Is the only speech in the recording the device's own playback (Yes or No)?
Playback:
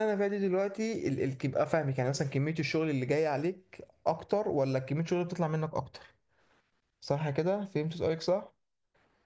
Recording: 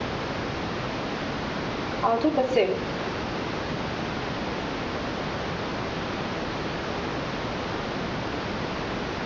No